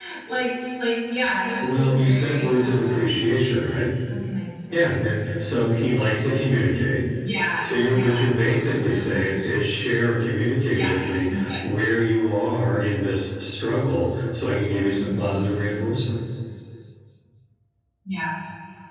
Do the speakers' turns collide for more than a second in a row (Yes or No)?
Yes